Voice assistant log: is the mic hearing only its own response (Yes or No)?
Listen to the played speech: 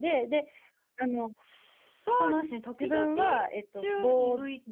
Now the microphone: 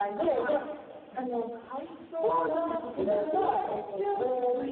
No